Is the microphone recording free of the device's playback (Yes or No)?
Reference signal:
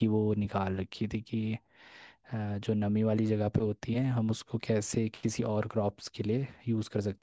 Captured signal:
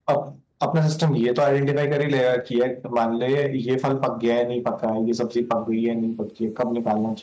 Yes